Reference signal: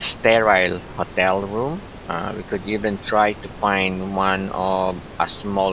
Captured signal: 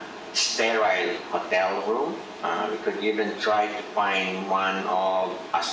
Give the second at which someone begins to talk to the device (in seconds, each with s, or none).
none